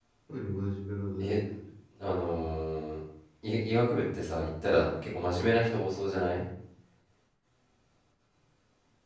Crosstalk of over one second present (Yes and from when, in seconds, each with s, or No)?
No